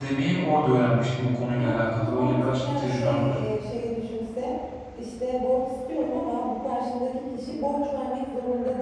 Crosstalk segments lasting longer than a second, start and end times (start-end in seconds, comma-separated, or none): 1.5-3.3